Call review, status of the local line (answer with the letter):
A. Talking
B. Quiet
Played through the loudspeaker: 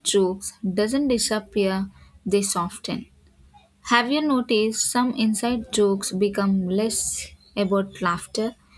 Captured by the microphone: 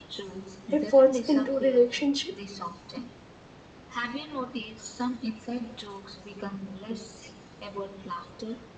A